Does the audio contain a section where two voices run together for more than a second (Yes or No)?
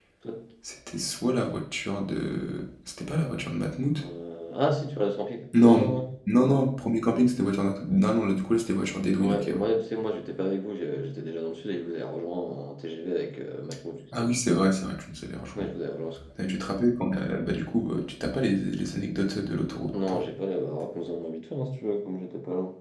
No